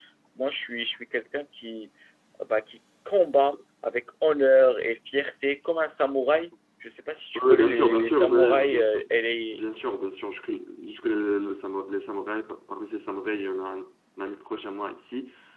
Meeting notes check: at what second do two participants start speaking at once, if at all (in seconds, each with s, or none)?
7.3 s